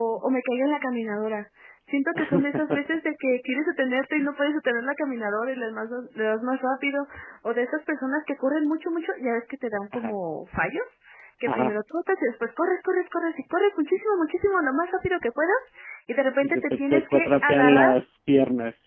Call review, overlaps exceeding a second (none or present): present